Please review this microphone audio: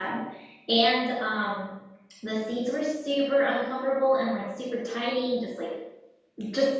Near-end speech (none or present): present